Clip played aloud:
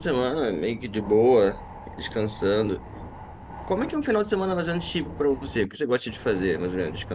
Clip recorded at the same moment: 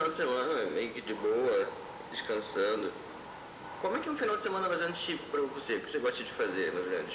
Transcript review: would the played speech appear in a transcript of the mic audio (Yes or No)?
Yes